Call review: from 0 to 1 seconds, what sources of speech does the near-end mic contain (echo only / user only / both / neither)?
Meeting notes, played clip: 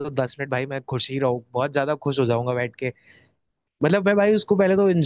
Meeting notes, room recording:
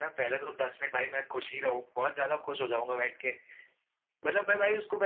echo only